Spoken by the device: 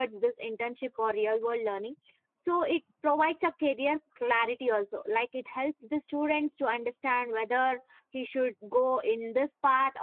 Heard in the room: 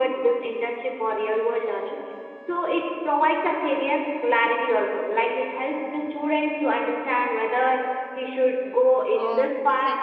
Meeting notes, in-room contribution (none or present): present